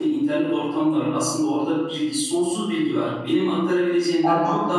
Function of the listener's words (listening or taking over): listening